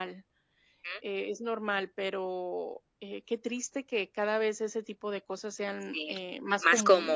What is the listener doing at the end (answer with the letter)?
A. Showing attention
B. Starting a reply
B